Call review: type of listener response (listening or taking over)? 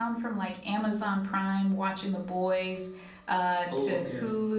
listening